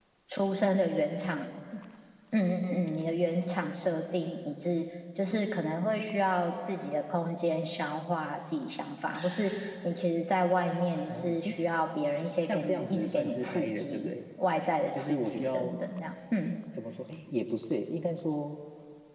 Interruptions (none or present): present